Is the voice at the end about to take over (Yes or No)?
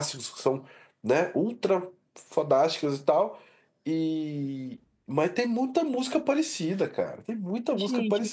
Yes